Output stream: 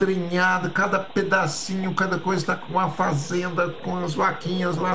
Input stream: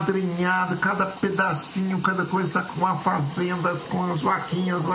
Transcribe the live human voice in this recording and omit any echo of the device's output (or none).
none